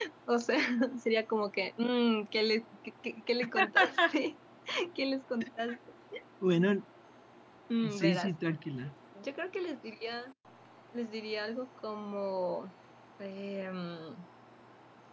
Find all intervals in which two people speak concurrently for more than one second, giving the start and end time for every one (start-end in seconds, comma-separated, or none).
none